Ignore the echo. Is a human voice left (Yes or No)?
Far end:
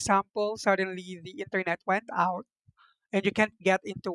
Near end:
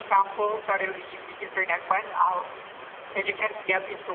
No